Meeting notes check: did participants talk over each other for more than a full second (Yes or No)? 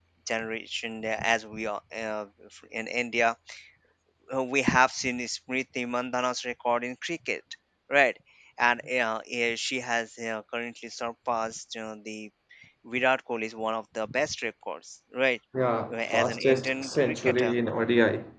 Yes